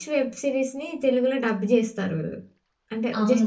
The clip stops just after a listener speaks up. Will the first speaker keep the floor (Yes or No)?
No